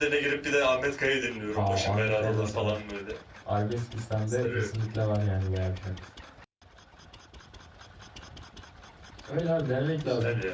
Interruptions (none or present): present